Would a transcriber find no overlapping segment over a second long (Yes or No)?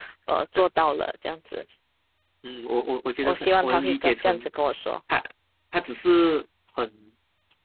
No